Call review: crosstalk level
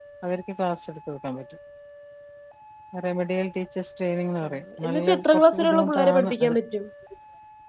present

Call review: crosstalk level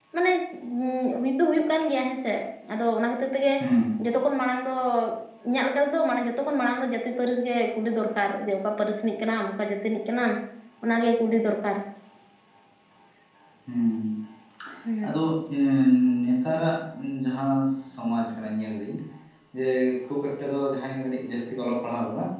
none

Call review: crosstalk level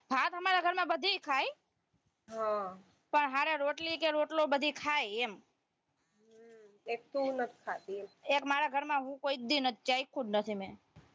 none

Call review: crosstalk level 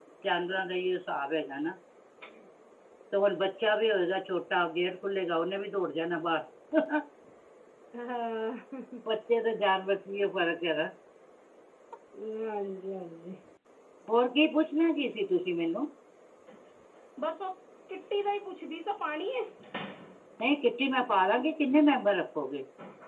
none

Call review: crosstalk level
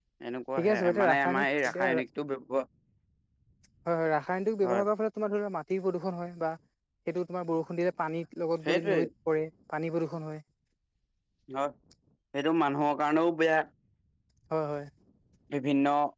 present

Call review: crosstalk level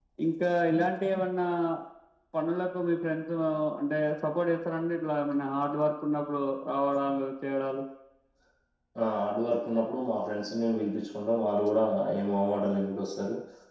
none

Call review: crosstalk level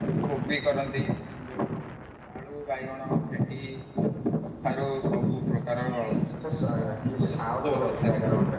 present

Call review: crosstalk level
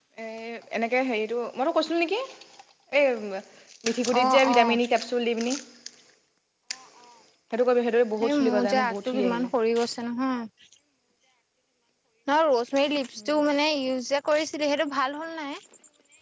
present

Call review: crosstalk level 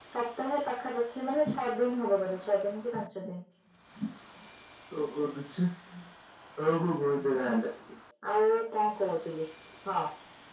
none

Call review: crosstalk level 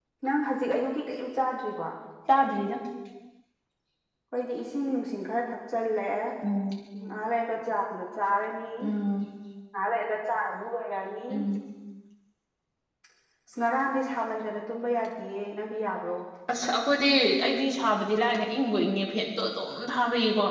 none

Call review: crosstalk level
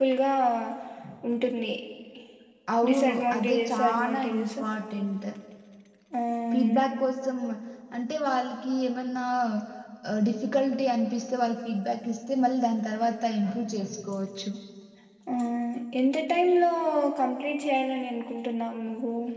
present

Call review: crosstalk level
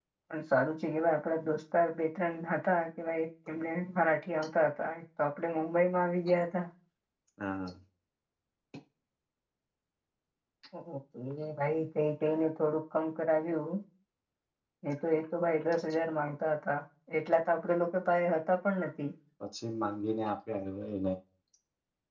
none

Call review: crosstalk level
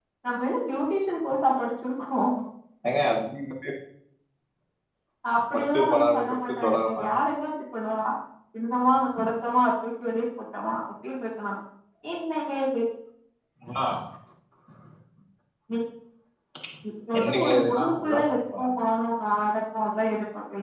present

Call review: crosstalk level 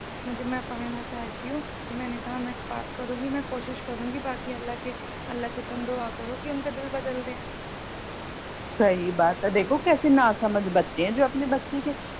none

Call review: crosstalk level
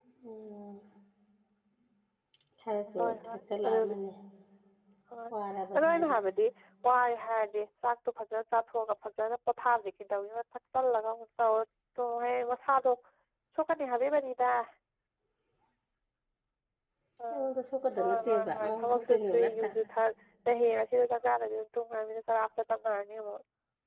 present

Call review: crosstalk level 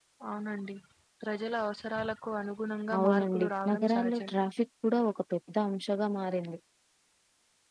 present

